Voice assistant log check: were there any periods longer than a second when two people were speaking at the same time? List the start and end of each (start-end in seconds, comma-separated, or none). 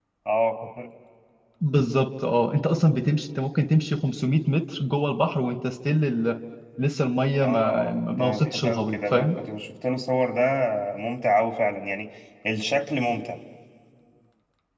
7.4-9.3